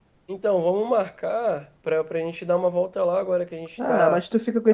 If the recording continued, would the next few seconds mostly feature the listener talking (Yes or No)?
Yes